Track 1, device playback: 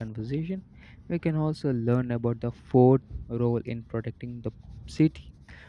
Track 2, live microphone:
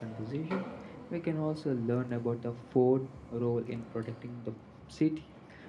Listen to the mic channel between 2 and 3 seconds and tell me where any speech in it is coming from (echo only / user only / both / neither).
echo only